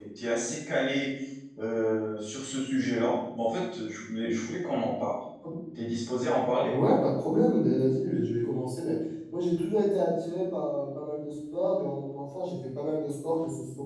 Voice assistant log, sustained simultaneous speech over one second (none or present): none